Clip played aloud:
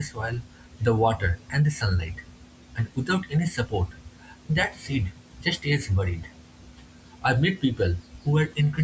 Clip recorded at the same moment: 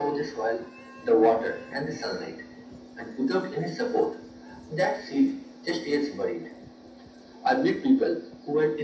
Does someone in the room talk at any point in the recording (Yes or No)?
No